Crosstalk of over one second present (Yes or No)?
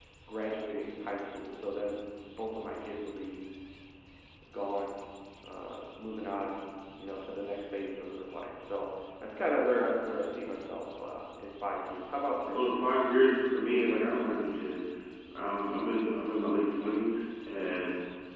No